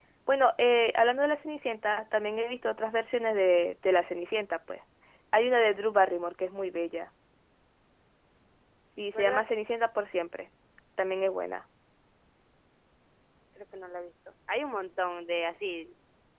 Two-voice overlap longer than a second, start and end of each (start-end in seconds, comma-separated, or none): none